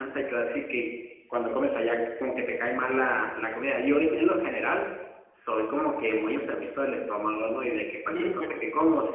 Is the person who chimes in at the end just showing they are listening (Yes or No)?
Yes